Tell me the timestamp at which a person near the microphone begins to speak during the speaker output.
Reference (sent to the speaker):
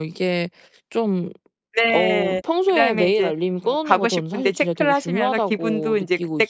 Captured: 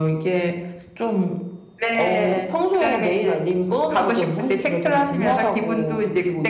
none

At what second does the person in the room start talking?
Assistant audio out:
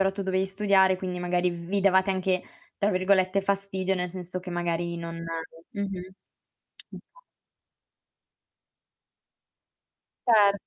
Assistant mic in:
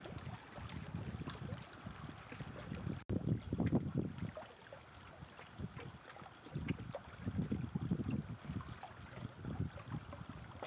none

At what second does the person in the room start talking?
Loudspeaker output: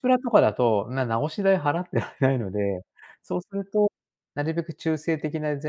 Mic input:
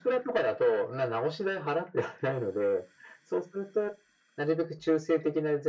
none

